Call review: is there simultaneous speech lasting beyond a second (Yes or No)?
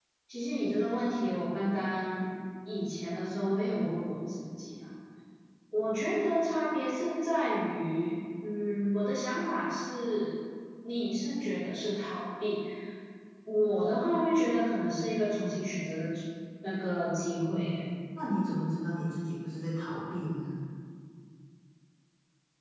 No